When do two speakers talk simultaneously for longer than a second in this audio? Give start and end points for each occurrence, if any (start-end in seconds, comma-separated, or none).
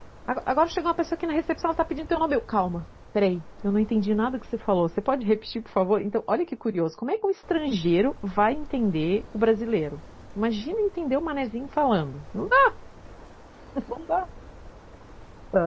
none